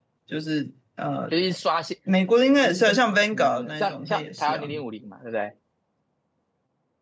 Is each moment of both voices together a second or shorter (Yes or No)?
No